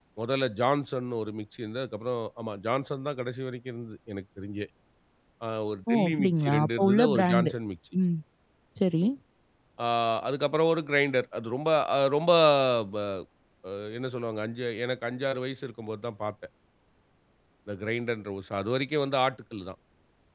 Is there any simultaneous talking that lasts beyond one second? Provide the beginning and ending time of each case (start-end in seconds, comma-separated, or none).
5.9-7.5